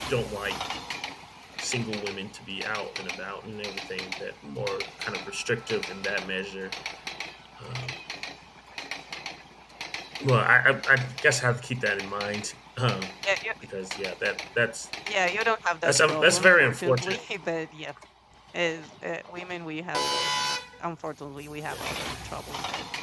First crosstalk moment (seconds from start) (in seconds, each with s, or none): 15.8 s